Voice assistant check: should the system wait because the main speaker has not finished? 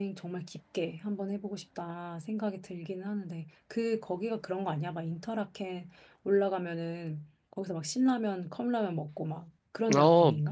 No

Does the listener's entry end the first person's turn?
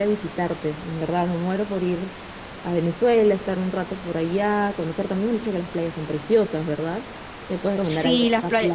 Yes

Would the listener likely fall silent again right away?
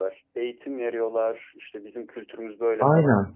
No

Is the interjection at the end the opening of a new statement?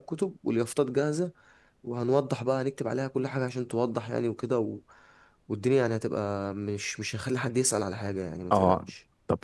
Yes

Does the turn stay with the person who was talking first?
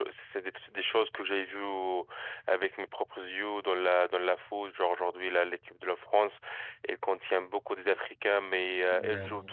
Yes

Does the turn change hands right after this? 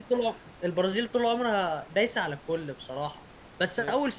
No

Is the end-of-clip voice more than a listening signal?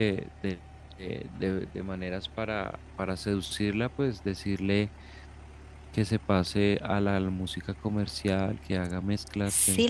Yes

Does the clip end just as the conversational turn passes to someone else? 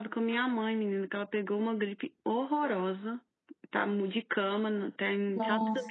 No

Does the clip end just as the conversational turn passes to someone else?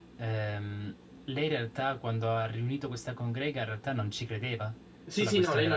Yes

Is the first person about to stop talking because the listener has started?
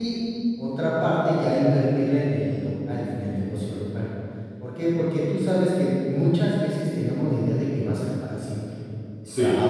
No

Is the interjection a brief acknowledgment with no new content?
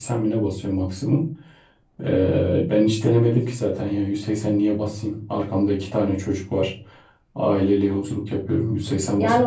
No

